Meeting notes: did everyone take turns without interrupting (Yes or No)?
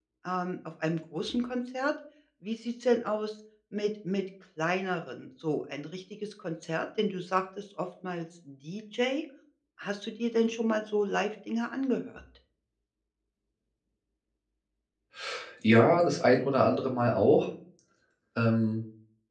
Yes